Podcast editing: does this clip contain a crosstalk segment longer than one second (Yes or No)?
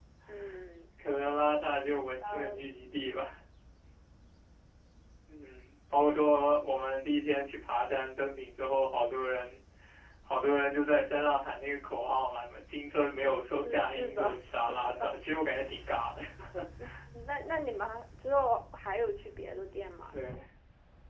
Yes